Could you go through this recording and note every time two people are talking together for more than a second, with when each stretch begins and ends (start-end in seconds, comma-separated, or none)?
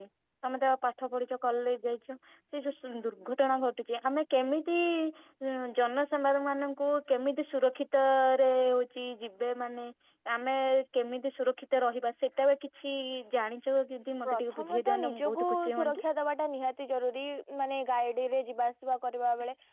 14.3-16.0